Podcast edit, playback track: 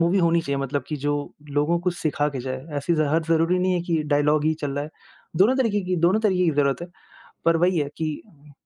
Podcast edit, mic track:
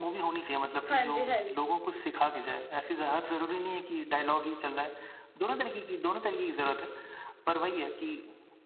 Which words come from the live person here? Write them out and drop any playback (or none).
हाँ जी, हाँ जी।